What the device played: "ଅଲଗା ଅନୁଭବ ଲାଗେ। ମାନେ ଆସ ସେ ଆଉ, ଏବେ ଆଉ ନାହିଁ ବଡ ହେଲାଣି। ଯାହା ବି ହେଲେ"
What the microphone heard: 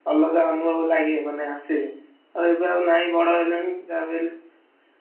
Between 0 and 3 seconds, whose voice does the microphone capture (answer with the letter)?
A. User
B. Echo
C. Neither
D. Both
B